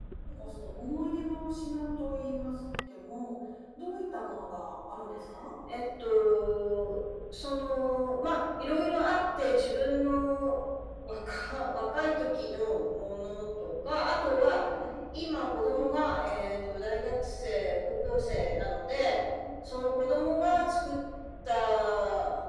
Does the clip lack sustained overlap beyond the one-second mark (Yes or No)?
Yes